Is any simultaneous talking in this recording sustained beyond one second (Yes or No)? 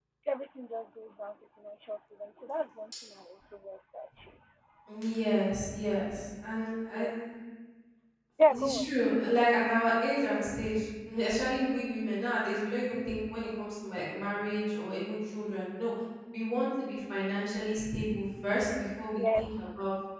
No